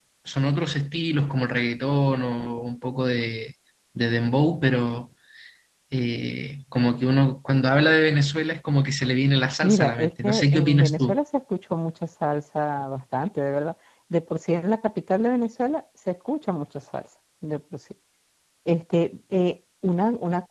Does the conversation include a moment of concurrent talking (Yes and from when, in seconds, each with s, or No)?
Yes, from 9.6 s